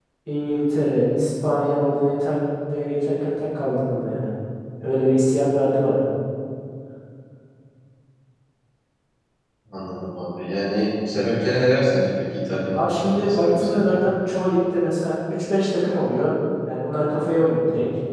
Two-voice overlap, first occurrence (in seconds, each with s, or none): 12.7 s